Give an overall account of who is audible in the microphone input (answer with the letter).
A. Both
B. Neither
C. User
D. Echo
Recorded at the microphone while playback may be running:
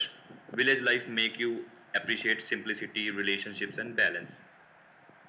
D